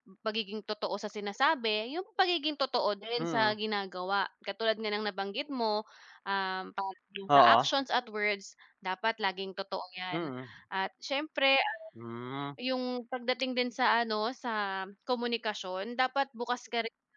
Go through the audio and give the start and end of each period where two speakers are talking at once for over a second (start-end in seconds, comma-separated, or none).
none